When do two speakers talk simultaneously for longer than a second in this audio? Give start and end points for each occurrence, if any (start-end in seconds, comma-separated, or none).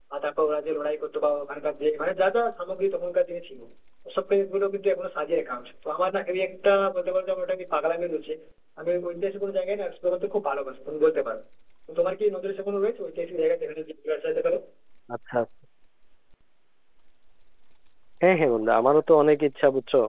none